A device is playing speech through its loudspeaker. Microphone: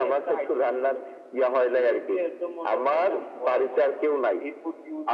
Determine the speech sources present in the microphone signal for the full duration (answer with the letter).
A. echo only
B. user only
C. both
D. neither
A